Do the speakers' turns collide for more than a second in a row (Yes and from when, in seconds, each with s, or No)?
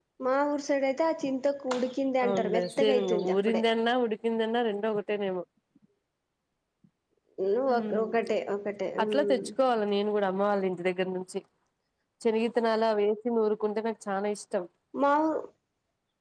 Yes, from 2.2 s